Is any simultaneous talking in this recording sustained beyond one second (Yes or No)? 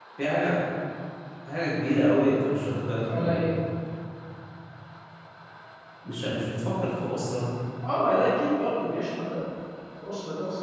No